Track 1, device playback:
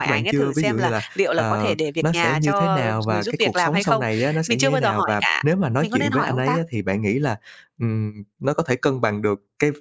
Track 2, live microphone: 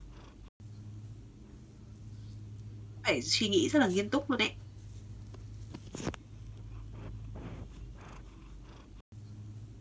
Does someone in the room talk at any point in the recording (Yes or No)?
Yes